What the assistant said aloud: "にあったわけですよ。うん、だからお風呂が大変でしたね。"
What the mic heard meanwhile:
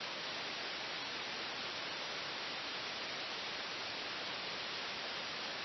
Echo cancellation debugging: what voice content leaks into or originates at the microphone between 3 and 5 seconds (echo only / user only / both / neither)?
neither